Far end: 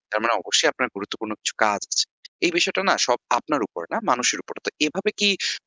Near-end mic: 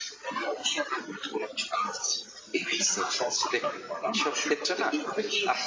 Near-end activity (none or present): present